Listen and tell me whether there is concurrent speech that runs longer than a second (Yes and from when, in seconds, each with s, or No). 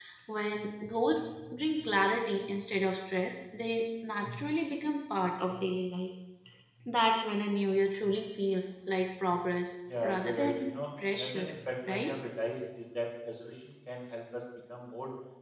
Yes, from 10.0 s